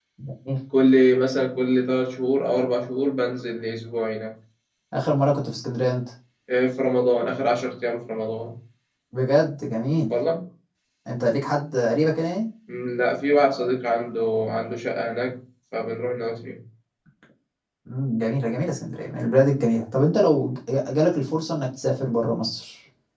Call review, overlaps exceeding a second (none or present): none